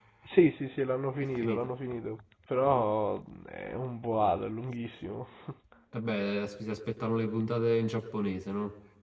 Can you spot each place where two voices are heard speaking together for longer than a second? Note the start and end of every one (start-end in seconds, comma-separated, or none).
none